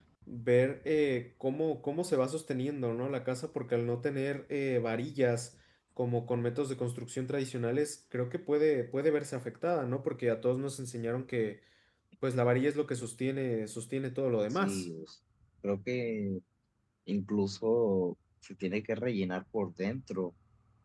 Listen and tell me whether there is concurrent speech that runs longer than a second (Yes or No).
No